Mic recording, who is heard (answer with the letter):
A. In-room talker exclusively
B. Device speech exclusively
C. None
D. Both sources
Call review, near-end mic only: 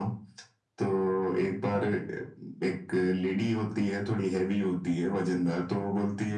D